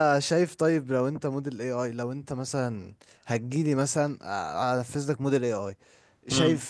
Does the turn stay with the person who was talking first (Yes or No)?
Yes